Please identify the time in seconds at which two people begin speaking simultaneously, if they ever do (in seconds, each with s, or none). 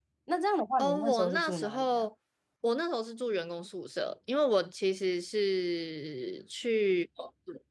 0.8 s